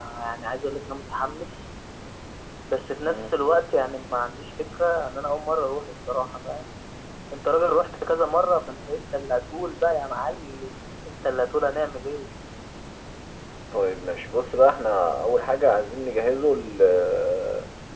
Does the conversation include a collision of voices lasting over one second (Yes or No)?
No